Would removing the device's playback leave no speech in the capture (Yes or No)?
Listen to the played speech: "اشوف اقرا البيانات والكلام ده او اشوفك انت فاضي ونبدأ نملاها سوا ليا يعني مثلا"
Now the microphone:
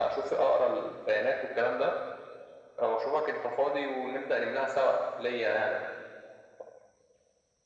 Yes